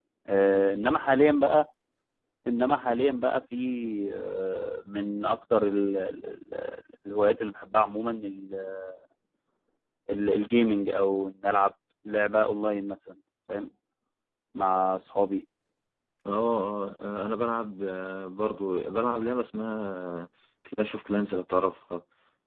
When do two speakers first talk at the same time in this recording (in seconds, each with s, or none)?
none